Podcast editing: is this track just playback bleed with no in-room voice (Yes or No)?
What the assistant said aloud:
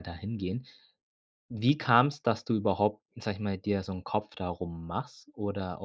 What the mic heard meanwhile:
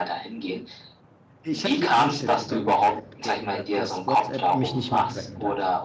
No